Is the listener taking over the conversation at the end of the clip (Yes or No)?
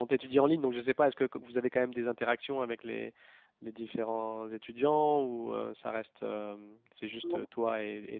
No